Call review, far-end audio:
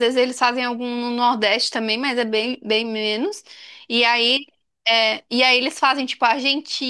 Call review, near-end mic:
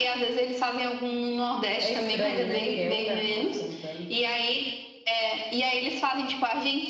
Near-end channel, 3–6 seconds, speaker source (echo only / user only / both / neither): both